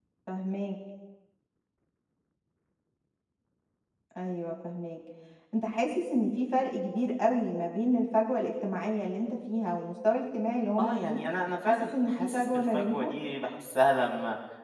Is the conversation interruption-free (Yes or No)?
No